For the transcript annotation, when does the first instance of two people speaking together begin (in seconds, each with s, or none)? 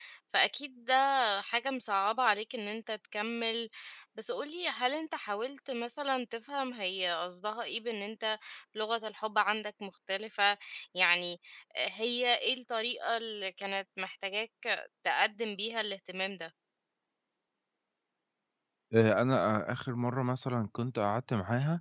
none